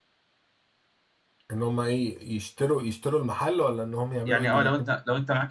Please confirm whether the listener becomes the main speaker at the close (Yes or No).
Yes